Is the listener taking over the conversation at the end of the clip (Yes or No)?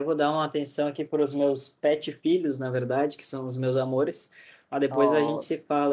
No